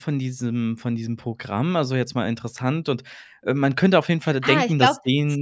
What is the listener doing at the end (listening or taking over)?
taking over